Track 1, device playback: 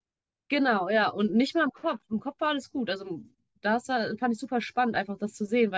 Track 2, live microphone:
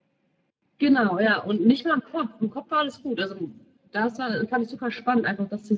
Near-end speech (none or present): none